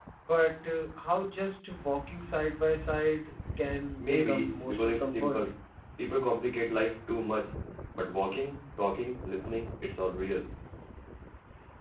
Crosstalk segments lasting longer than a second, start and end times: 4.0-5.4

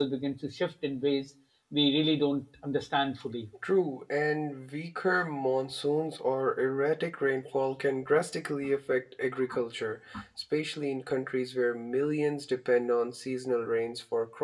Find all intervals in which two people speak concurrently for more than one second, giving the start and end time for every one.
none

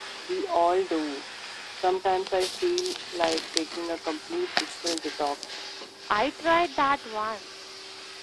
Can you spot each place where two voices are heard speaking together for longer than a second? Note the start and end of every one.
none

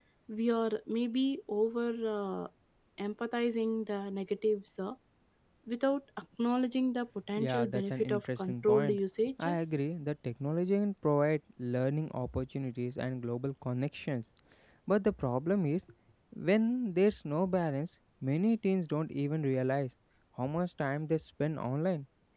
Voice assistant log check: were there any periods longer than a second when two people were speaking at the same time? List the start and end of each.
7.4-9.0

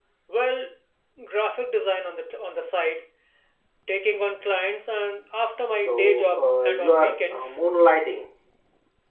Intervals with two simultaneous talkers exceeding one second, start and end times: 5.8-7.5

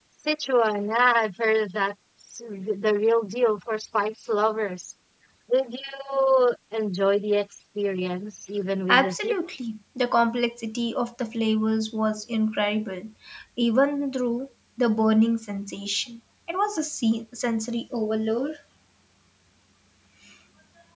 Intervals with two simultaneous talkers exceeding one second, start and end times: none

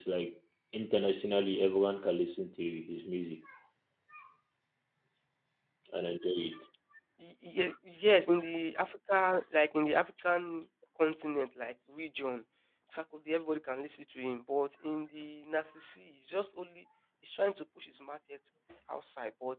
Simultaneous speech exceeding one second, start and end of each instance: none

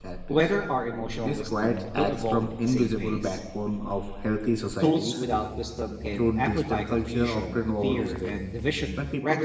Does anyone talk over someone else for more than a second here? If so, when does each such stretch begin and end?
1.2-3.4, 6.1-8.4

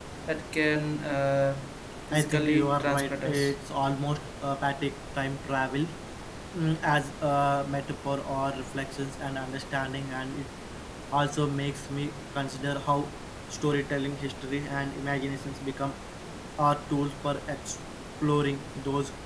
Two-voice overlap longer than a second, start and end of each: 2.1-3.5

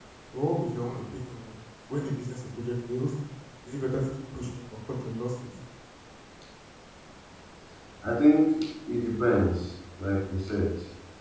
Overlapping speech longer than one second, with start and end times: none

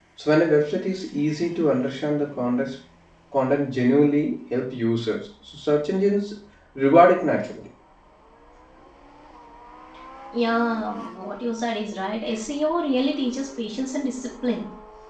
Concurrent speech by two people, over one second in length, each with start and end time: none

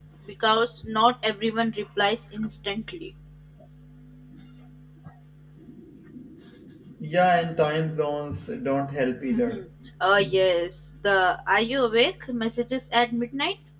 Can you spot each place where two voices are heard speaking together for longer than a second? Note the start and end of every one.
none

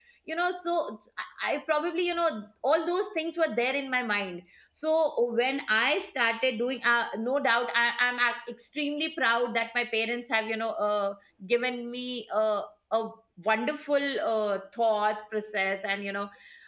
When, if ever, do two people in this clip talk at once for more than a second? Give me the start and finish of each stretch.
none

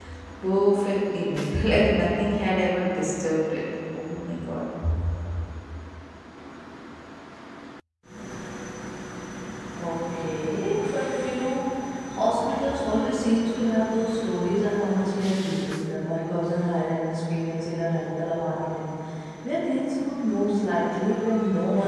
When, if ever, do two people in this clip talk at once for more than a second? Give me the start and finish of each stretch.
none

